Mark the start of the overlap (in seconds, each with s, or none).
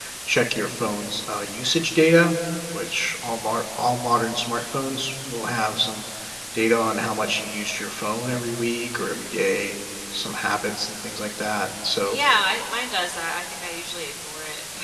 none